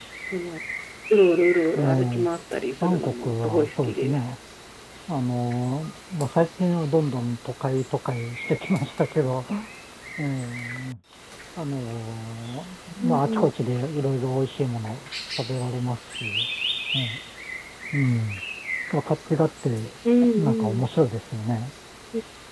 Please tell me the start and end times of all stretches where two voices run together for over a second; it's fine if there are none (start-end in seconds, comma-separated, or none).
2.8-4.2